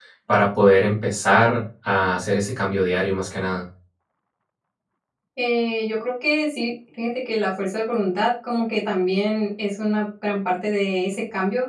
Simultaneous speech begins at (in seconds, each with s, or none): none